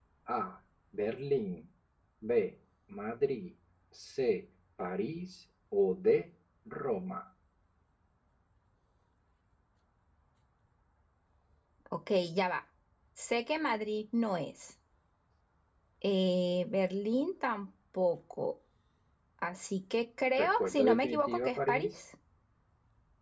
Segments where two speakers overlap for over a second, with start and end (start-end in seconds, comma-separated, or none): 20.4-22.0